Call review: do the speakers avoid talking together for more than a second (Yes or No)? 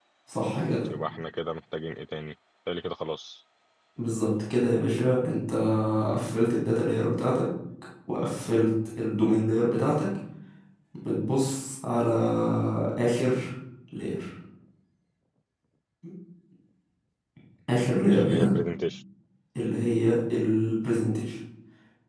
Yes